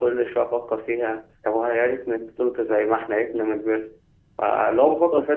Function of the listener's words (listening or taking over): listening